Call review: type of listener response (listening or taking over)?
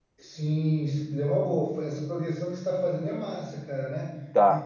listening